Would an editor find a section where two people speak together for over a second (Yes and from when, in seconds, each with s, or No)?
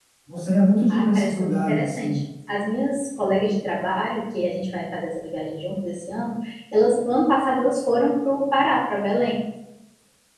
Yes, from 0.9 s